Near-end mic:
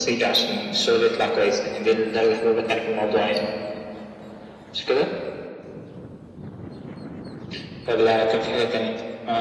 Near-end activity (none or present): none